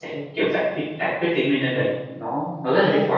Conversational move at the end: listening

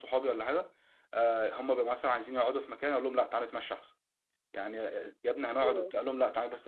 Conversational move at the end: listening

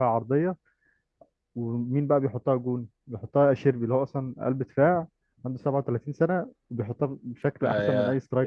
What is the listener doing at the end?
taking over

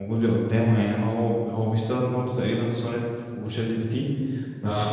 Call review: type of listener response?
listening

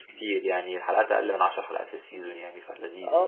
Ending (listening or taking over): taking over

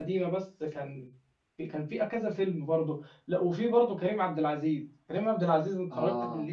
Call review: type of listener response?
listening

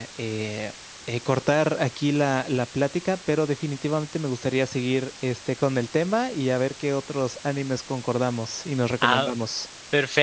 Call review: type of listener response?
taking over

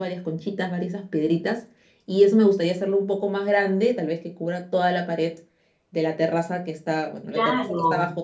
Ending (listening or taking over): listening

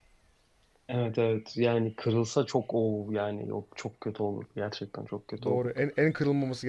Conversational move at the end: taking over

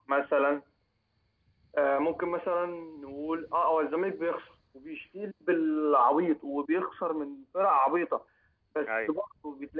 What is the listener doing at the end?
listening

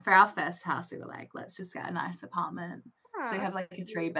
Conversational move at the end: listening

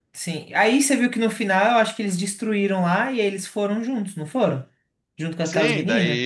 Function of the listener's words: taking over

